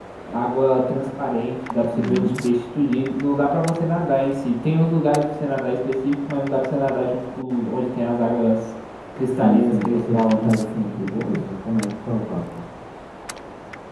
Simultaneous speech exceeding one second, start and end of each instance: 9.3-10.5

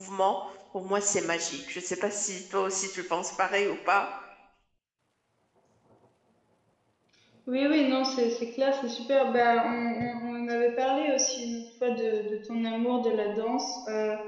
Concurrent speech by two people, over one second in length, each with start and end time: none

